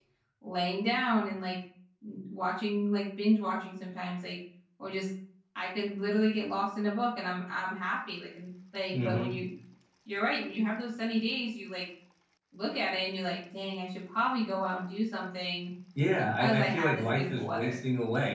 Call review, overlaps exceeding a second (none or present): present